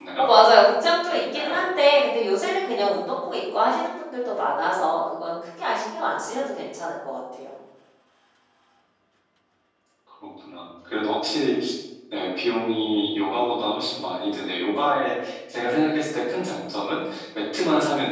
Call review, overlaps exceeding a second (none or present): none